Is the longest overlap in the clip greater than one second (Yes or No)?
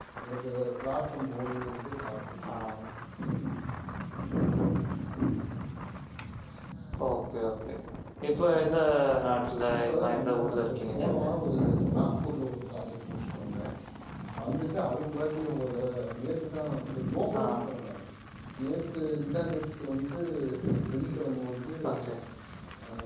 Yes